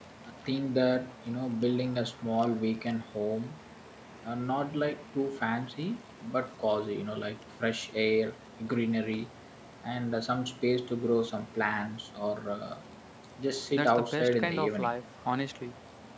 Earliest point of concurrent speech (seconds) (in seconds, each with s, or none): 13.7 s